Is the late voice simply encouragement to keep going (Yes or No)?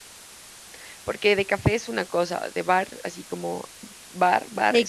No